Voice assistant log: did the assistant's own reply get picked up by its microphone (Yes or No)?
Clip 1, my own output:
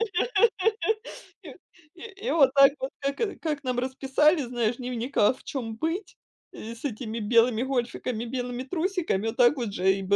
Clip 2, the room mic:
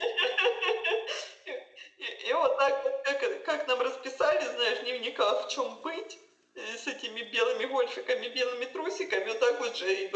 Yes